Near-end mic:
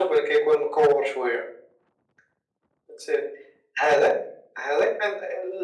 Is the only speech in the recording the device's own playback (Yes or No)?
Yes